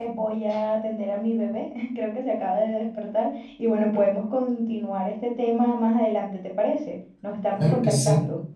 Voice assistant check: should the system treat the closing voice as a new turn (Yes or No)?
Yes